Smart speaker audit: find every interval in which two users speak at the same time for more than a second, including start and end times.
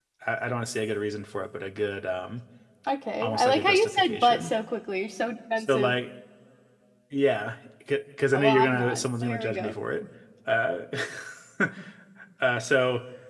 3.2-4.5, 8.3-9.7

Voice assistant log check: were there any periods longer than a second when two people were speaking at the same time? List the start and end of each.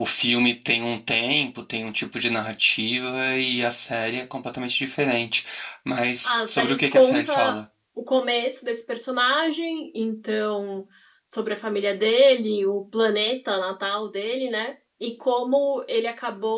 6.2-7.5

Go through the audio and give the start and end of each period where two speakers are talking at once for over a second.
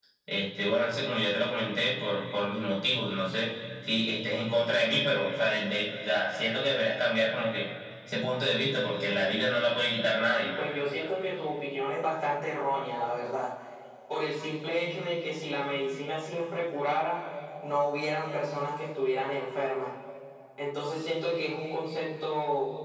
none

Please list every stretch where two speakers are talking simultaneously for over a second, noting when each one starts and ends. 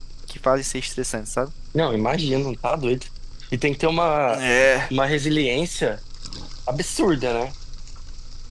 none

